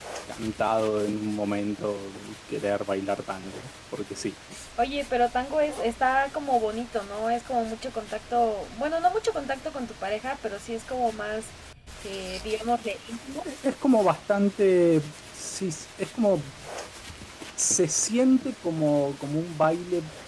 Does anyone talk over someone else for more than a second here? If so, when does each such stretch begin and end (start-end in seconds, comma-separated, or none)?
none